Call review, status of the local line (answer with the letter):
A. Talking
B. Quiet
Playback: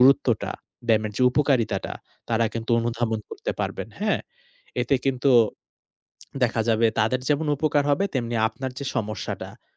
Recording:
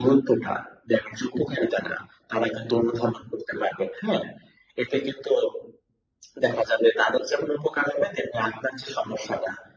B